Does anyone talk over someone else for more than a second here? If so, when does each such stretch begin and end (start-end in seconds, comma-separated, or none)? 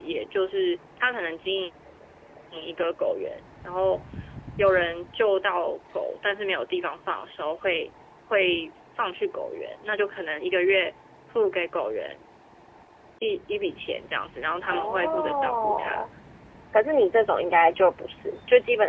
14.7-16.0